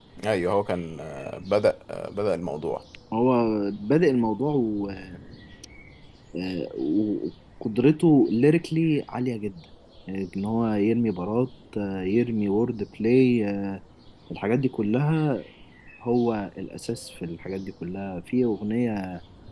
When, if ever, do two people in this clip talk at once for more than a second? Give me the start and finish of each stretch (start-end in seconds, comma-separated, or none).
none